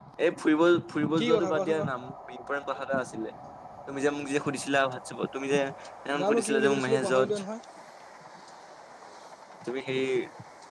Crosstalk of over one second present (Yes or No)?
Yes